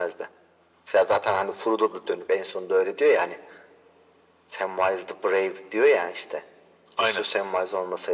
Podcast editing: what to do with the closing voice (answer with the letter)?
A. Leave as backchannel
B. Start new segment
A